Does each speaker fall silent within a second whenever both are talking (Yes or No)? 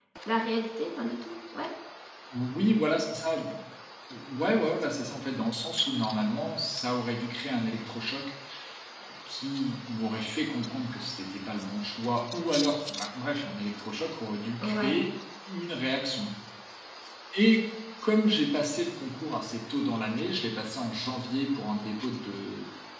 Yes